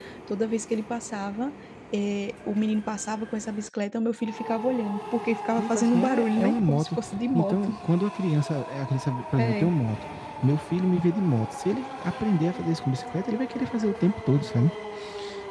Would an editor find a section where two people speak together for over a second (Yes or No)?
Yes